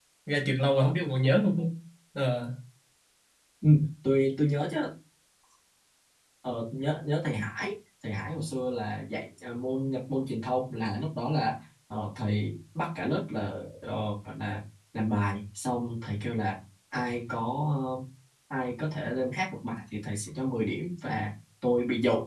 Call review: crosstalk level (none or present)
none